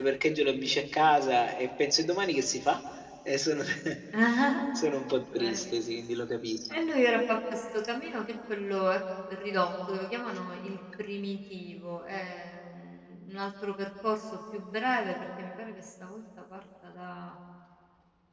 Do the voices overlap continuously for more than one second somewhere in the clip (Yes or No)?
No